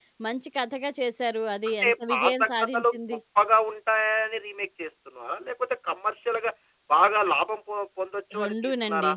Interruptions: present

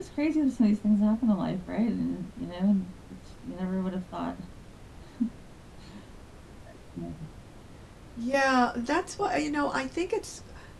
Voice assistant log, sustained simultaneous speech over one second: none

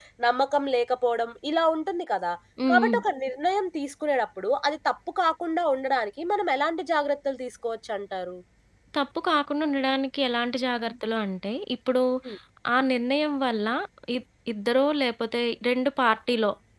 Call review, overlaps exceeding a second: none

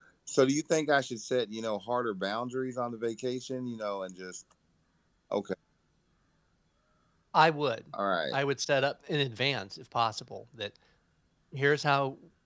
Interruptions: none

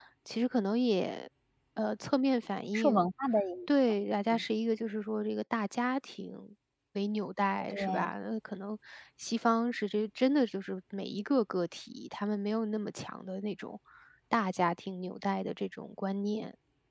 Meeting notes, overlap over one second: none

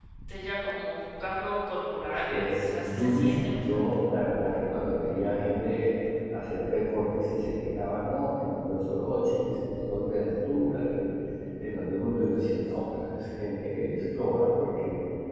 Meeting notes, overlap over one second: present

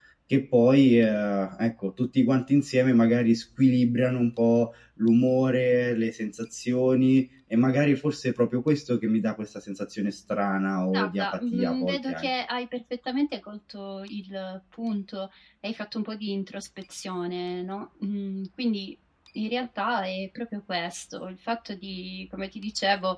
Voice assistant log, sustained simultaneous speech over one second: present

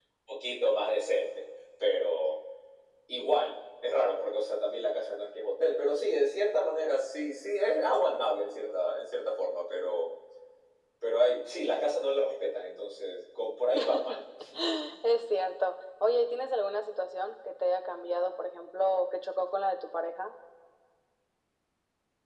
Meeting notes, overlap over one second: none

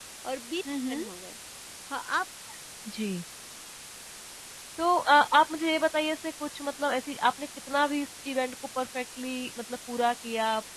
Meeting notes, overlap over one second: none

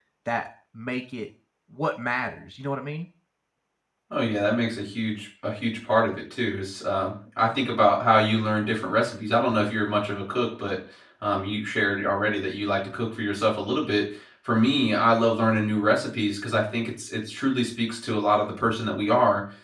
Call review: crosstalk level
none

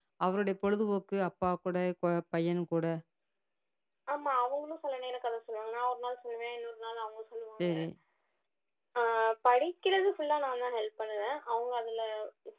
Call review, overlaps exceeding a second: none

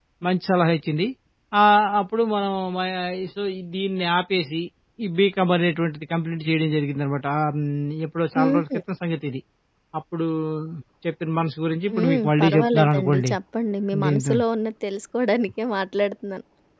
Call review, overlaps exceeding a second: present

